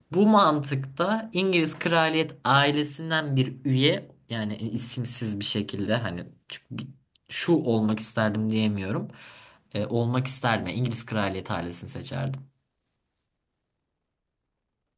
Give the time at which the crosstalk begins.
none

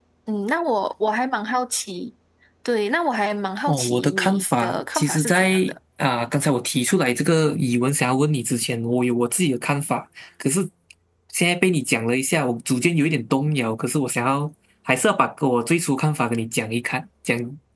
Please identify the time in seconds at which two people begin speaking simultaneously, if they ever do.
4 s

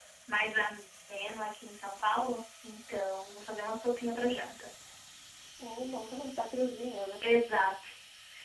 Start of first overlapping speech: none

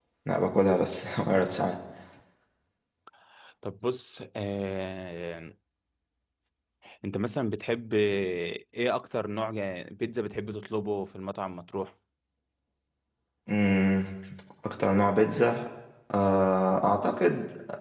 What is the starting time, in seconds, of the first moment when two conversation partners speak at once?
none

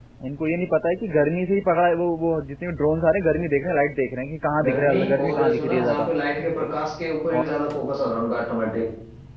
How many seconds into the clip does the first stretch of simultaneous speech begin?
5 s

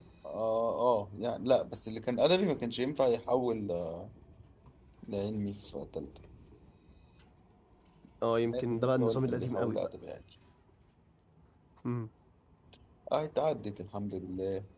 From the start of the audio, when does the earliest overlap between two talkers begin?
9 s

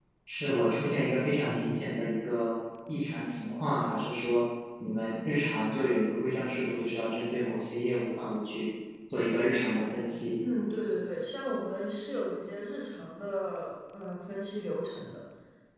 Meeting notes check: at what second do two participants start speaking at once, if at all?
none

